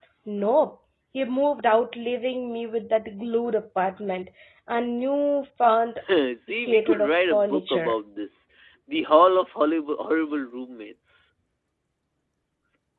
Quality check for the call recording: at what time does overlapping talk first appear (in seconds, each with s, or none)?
6.5 s